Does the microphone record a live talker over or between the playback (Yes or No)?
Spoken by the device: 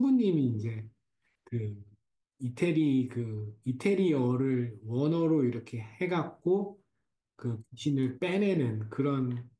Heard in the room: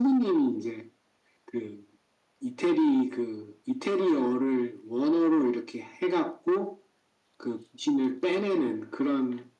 No